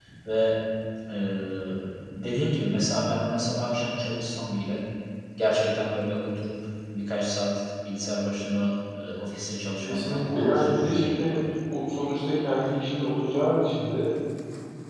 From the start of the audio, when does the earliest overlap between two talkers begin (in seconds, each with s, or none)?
9.8 s